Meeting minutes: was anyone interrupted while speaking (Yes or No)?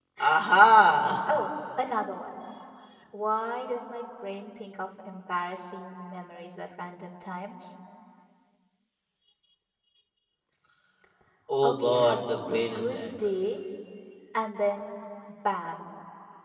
Yes